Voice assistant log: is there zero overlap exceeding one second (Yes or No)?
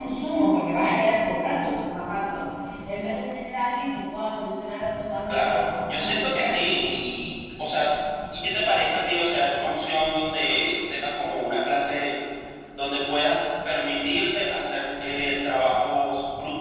No